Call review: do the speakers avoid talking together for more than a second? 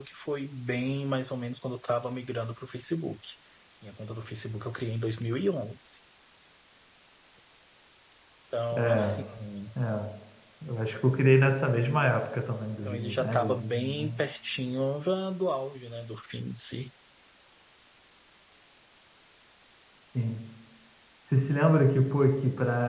No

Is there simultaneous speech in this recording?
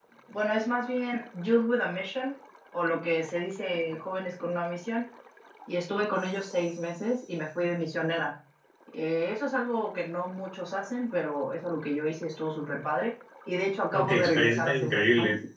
Yes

